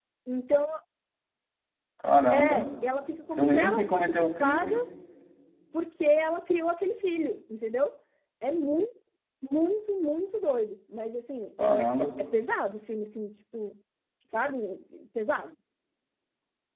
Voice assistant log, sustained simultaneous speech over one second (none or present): present